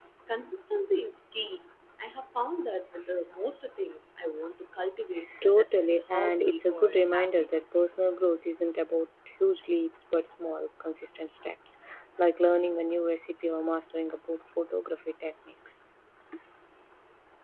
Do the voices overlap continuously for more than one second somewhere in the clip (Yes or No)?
Yes